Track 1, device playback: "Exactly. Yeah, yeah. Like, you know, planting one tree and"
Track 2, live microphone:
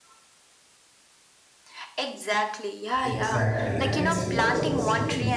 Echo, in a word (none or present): present